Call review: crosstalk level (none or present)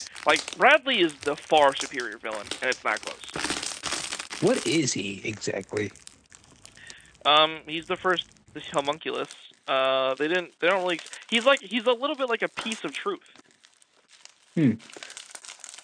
none